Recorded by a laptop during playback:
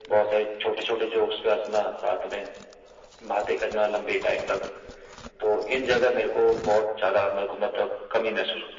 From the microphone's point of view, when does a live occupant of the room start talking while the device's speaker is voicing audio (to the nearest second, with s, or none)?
none